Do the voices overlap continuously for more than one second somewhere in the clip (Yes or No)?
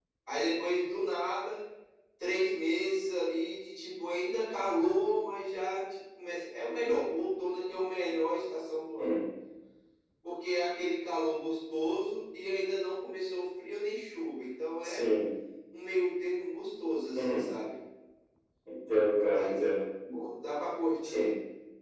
No